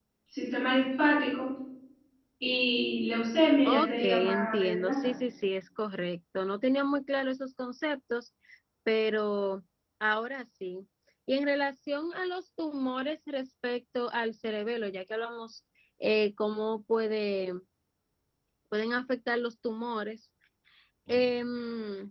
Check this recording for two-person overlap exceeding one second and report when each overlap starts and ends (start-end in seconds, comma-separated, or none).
3.6-4.9